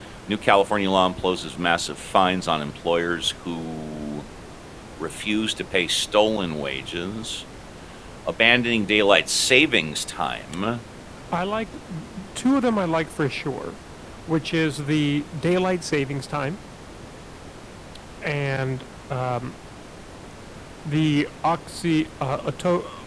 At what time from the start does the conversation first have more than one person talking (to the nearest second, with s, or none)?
none